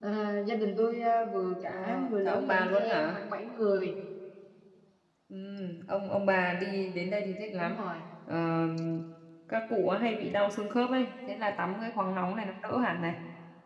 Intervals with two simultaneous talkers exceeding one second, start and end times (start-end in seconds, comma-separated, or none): 1.7-3.2